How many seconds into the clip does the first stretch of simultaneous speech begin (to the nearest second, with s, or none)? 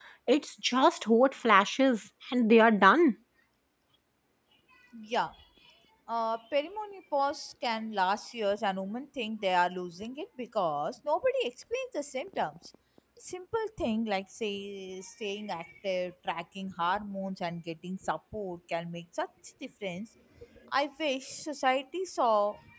none